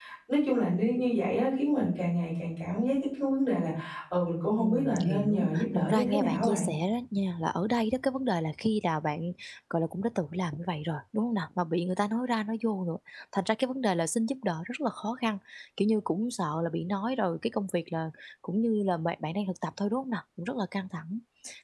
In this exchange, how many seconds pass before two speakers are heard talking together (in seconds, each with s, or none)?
4.6 s